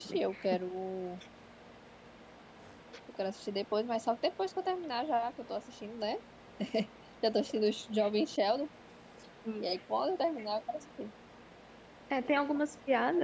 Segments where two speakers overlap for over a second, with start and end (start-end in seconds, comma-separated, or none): none